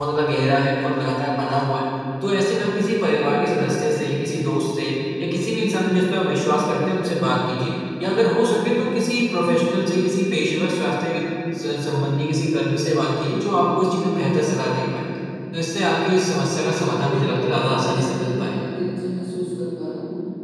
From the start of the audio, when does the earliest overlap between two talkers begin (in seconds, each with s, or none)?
16.7 s